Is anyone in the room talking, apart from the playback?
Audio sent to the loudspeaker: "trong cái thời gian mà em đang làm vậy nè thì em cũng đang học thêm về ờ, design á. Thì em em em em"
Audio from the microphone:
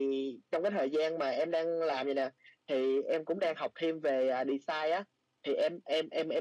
No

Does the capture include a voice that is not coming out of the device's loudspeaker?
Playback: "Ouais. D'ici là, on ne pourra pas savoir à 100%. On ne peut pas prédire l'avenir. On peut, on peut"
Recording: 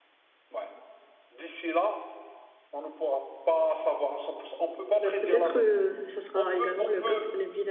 Yes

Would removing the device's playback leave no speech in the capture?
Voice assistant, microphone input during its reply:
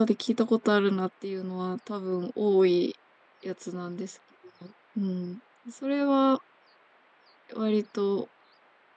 No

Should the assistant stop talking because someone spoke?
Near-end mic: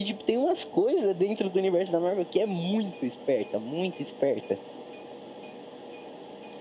No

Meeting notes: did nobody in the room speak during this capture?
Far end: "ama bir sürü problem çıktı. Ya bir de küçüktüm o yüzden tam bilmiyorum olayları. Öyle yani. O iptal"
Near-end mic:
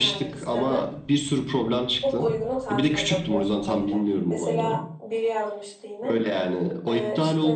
No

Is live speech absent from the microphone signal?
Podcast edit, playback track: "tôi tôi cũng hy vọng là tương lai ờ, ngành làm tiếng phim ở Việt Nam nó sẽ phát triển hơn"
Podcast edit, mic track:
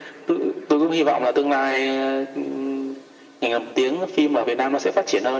Yes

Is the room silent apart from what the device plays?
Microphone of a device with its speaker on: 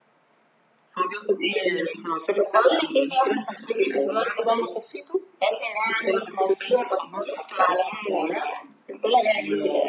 Yes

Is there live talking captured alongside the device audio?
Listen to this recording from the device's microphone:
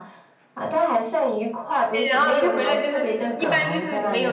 Yes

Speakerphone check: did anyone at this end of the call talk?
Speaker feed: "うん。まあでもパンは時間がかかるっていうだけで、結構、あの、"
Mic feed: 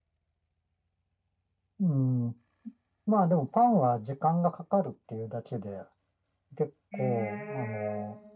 Yes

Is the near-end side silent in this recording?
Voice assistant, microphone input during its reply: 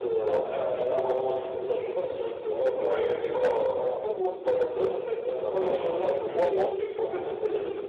No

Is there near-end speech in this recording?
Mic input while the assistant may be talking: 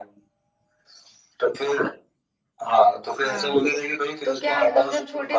Yes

